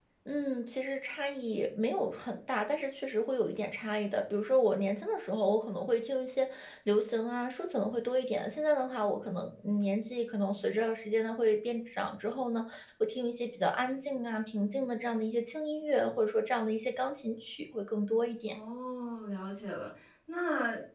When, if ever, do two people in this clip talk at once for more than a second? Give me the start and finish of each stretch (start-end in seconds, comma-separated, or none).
none